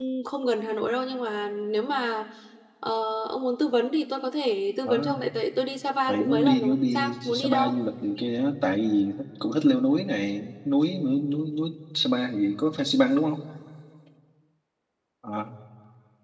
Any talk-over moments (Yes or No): Yes